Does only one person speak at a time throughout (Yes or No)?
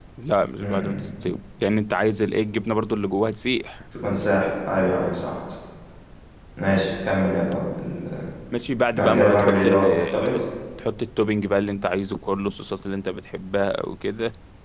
No